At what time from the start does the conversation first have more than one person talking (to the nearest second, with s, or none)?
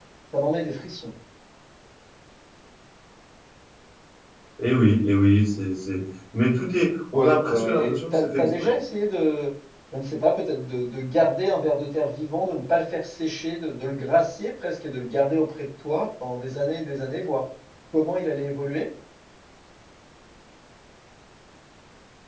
7 s